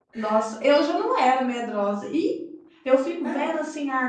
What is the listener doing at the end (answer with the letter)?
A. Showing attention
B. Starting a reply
A